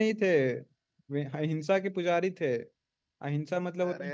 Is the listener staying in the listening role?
Yes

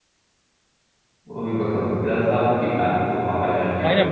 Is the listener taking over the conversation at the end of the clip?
Yes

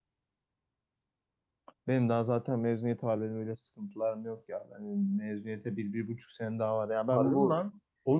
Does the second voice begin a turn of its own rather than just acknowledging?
Yes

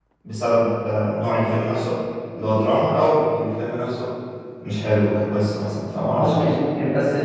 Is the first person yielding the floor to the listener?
Yes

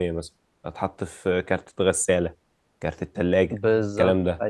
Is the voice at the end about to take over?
Yes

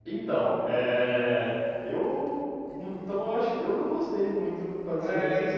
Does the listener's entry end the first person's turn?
Yes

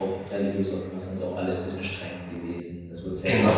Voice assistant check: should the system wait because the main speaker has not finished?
Yes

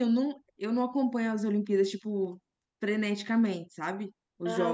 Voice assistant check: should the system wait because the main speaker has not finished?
Yes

